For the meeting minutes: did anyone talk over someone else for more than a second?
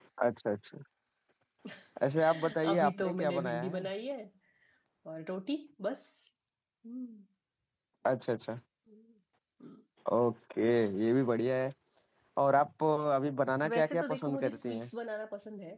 Yes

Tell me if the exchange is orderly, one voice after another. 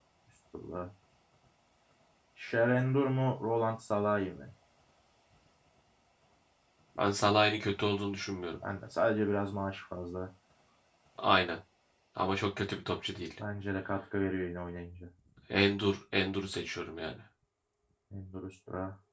Yes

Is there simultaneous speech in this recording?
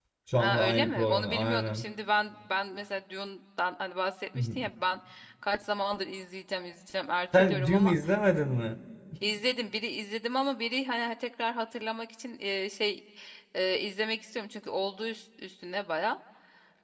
Yes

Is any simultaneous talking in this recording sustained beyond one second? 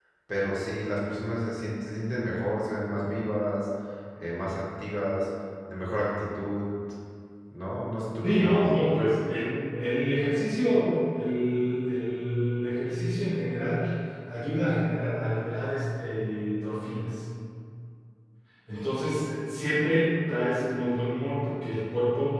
No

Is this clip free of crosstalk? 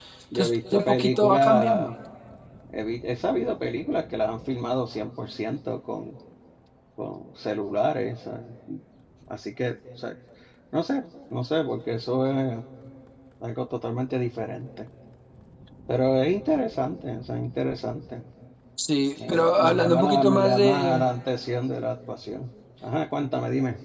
No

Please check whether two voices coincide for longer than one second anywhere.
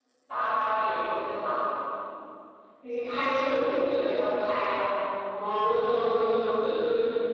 No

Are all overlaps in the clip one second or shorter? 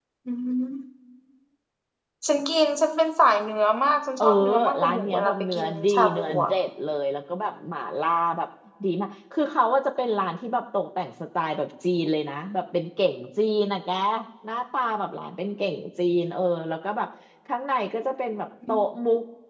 No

